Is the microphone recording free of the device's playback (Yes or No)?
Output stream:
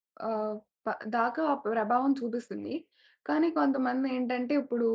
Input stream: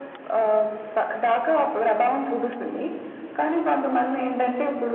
No